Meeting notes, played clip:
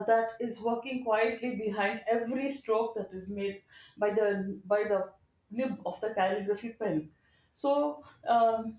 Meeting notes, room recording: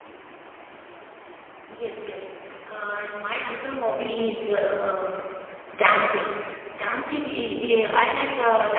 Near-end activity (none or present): present